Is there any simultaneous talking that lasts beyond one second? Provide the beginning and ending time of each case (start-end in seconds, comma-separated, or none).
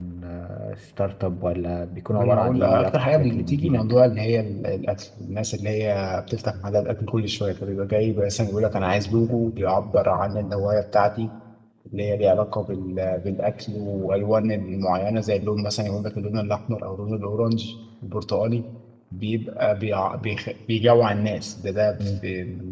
2.1-3.8